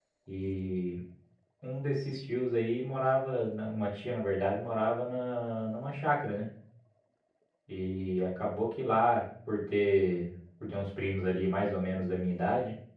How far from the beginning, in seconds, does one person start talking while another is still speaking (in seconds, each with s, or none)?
none